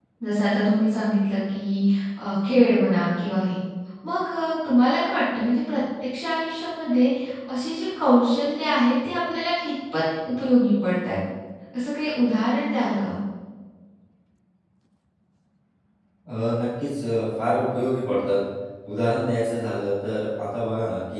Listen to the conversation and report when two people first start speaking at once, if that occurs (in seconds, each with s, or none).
none